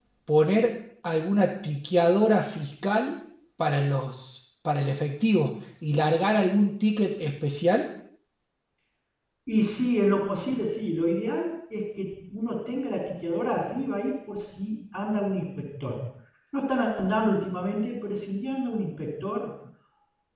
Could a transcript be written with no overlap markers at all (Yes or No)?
Yes